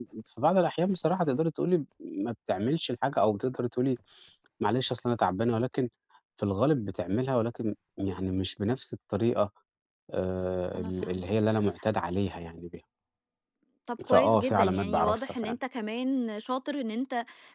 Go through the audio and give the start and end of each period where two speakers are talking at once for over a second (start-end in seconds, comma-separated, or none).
14.1-15.5